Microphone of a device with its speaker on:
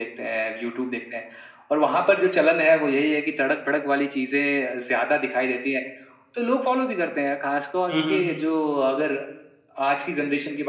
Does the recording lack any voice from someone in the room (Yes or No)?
No